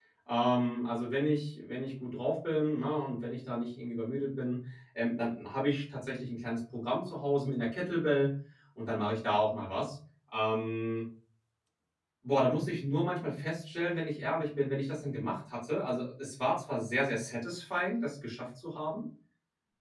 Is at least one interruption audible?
No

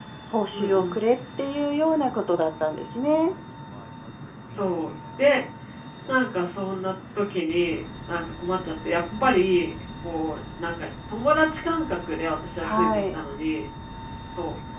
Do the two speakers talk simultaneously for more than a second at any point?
No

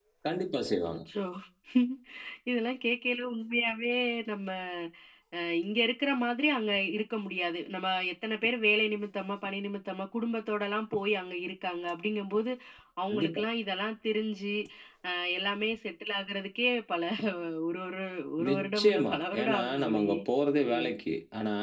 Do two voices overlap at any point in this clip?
Yes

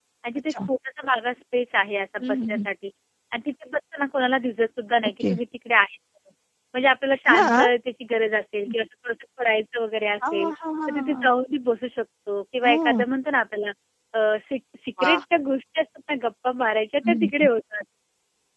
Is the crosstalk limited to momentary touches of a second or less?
Yes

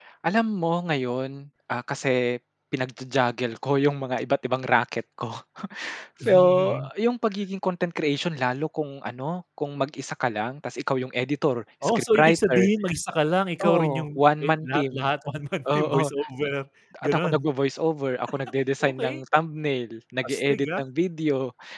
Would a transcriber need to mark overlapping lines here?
Yes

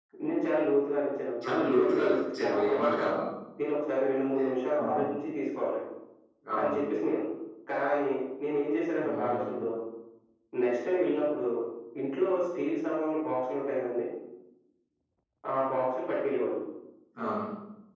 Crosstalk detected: Yes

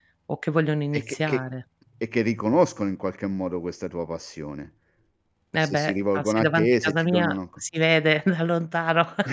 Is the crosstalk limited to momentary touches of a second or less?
No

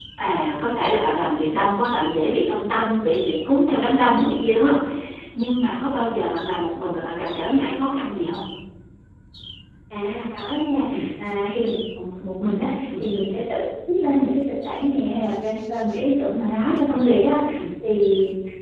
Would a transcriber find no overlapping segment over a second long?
Yes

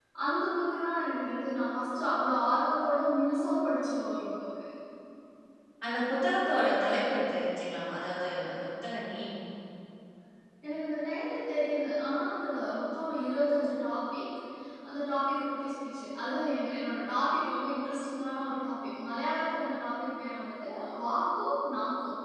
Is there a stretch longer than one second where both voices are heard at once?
No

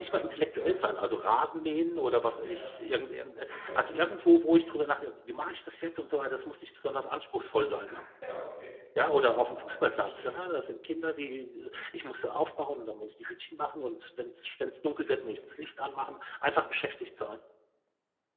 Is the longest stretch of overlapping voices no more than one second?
No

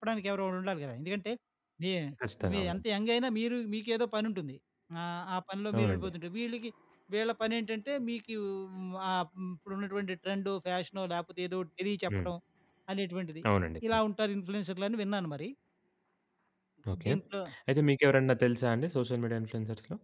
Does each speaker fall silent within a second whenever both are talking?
Yes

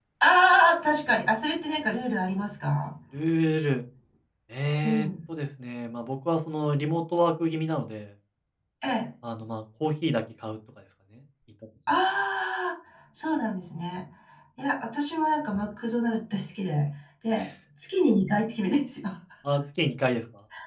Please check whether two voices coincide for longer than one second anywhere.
No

